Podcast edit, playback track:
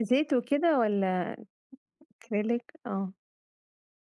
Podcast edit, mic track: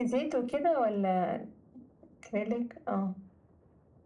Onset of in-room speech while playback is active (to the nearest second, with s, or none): none